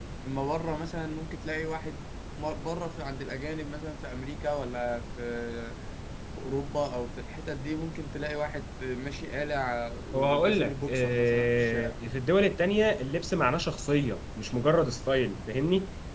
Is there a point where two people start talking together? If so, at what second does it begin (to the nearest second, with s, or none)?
10 s